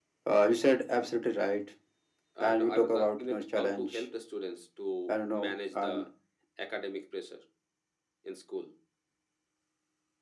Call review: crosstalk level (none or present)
present